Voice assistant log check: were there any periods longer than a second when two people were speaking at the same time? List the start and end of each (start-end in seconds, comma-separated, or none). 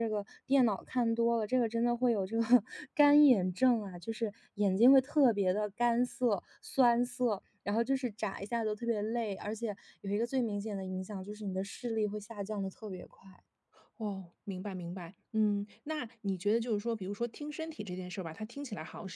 none